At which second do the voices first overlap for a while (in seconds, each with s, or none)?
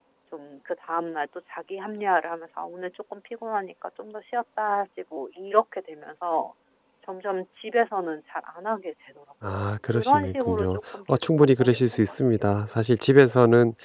9.4 s